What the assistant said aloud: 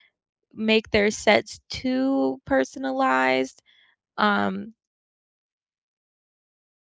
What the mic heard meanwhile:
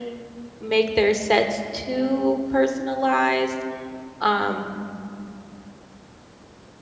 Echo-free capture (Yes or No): No